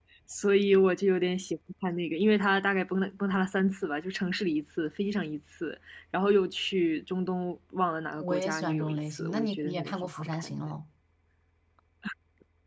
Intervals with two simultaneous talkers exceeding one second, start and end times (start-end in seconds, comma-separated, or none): 8.2-10.7